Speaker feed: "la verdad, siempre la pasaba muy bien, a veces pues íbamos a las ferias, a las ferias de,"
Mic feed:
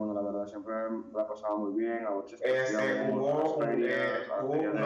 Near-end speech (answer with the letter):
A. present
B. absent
A